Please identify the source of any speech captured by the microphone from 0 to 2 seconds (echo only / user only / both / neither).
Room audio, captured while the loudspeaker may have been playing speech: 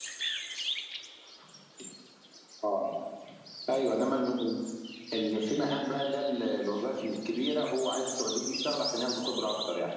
neither